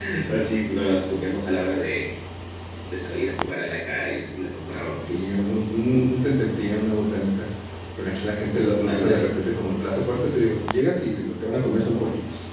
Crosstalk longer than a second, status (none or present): none